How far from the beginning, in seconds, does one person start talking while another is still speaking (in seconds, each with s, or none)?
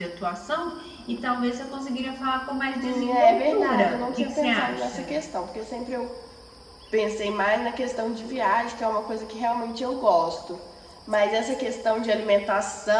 2.8 s